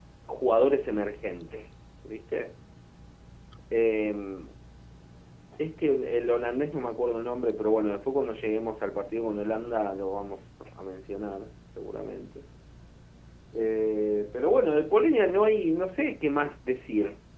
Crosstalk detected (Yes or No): No